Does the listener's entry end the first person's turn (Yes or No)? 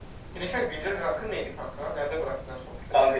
Yes